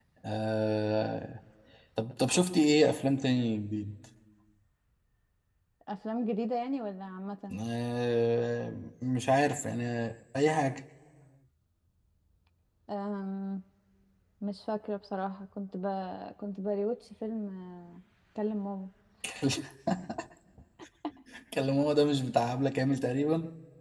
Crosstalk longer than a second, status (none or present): none